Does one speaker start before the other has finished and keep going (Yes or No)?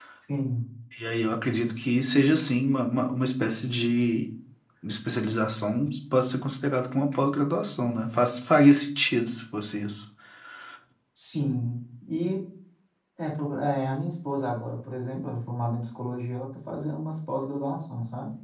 No